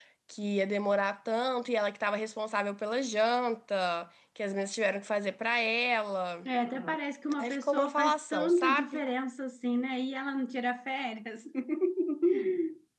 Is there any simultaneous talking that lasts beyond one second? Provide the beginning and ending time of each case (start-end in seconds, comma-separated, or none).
7.4-9.0